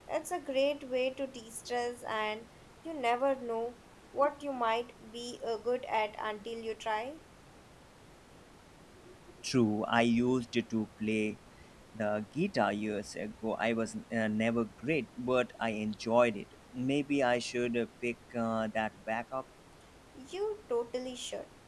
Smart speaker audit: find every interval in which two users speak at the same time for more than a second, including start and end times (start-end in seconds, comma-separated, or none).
none